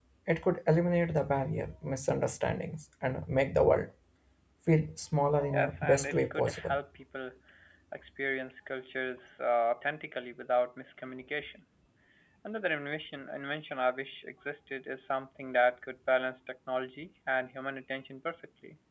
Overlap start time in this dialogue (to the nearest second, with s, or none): 6 s